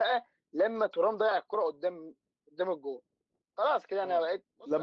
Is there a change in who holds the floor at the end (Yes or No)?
Yes